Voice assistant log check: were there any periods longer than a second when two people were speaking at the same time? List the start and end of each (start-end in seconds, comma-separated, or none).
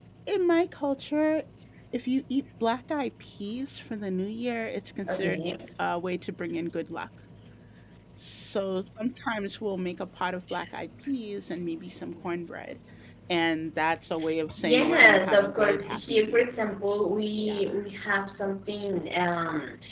14.6-16.5